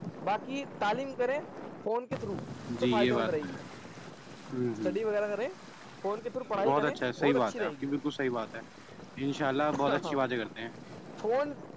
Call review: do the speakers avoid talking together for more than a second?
No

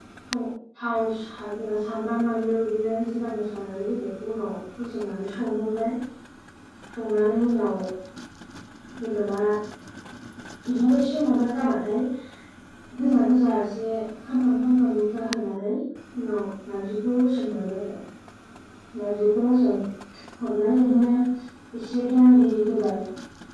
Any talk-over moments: No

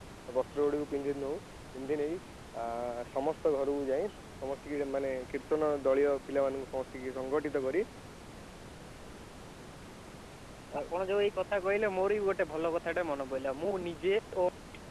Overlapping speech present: No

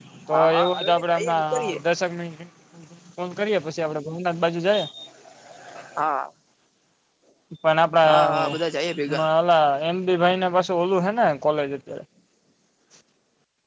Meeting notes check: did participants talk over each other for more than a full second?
Yes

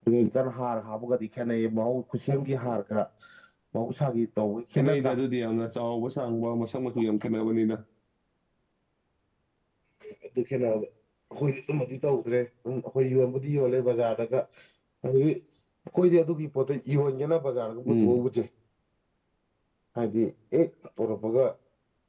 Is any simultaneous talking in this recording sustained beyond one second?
No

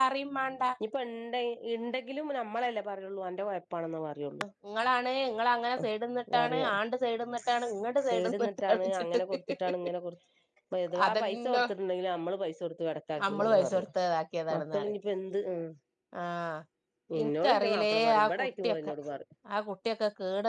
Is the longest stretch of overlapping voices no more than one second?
No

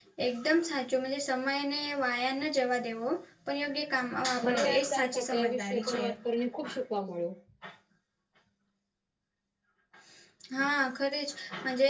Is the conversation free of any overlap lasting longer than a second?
No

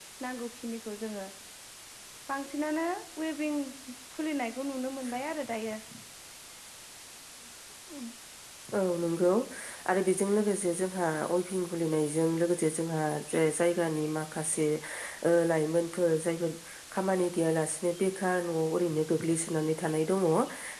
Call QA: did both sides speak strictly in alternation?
Yes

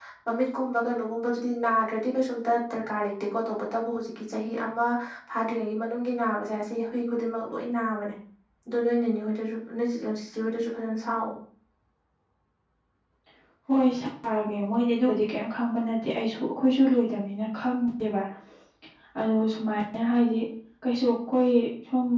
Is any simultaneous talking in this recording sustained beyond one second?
No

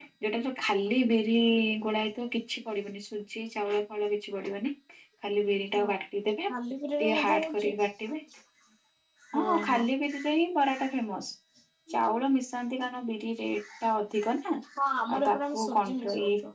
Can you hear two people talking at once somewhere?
Yes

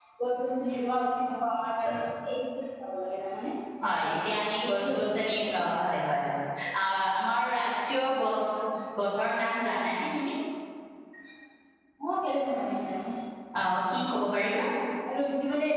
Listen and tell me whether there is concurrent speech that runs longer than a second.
Yes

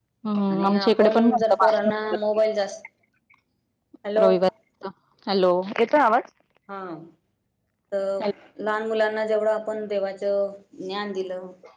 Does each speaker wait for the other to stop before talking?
No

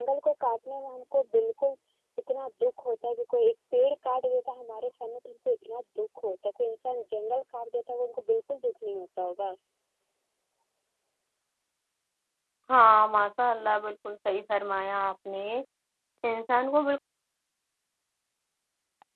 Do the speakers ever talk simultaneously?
No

